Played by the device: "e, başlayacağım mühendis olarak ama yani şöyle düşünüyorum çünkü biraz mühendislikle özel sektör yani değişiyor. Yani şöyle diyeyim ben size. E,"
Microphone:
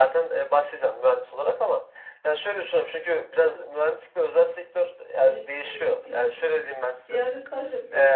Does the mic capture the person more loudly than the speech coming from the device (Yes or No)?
No